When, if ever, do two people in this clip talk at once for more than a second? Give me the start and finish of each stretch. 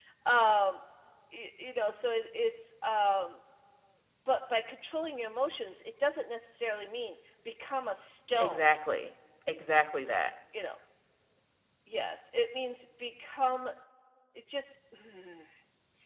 none

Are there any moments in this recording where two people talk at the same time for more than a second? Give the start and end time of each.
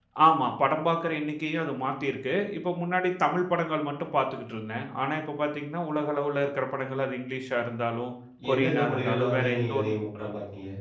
8.5-9.9

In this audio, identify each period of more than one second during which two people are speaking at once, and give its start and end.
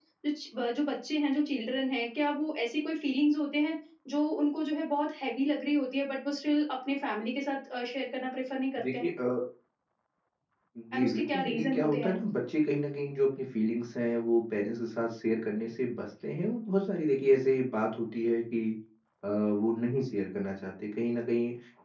10.9-12.1

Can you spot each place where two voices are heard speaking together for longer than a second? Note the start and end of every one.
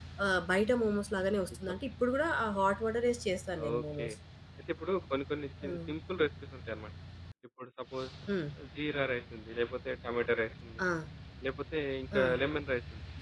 none

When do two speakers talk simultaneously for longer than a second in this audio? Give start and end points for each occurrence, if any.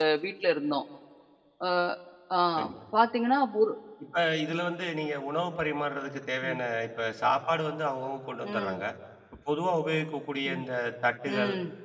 none

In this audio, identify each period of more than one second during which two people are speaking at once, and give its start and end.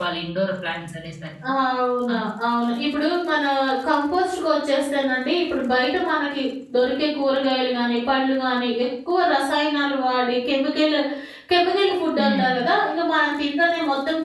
none

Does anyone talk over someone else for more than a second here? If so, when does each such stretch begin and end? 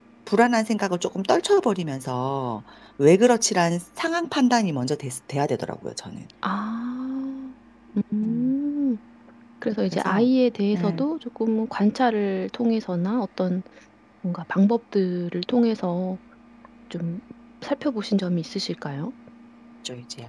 none

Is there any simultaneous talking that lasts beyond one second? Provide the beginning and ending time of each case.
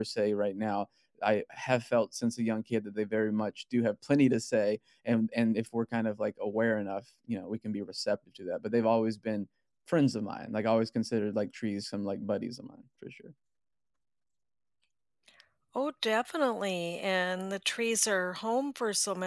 none

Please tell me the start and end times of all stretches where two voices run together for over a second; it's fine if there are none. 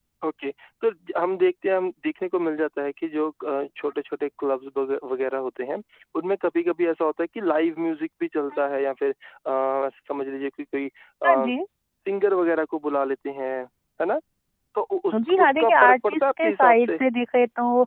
15.3-17.0

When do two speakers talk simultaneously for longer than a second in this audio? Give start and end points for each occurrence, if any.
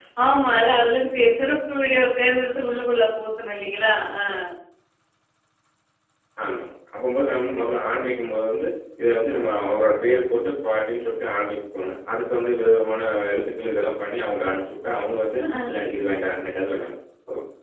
none

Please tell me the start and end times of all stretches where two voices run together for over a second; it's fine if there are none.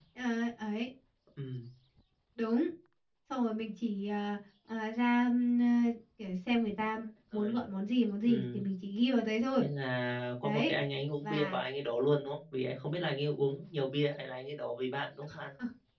none

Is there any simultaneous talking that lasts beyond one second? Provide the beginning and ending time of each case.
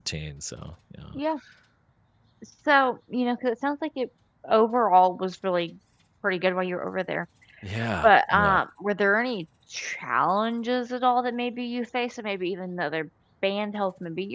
none

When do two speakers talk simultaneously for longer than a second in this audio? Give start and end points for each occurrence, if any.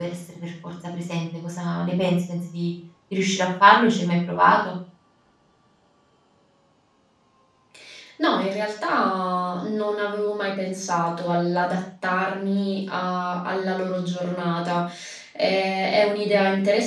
none

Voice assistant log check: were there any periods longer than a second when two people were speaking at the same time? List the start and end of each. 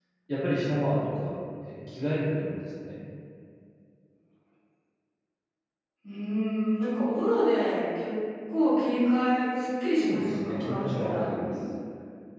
10.0-11.5

